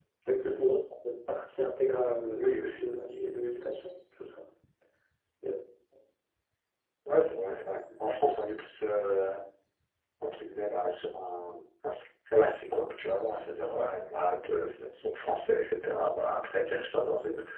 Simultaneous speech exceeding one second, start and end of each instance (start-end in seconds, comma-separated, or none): none